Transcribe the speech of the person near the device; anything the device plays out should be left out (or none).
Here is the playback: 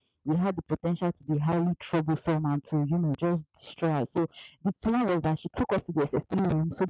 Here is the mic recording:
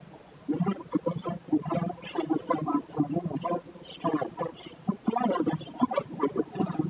none